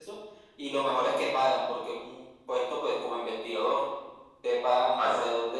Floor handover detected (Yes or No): No